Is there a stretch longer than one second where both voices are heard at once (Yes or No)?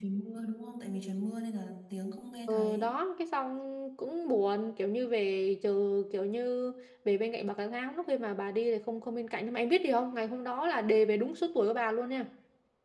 No